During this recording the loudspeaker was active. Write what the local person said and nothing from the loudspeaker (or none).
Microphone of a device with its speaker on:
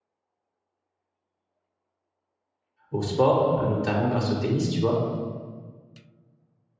au sport, heu, notamment grâce au tennis, tu vois?